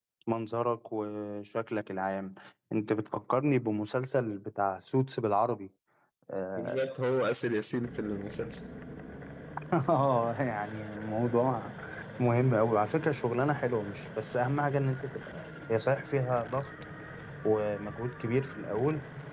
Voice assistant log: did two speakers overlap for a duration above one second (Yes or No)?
No